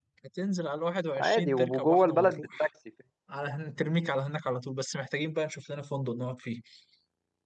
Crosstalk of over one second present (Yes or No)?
Yes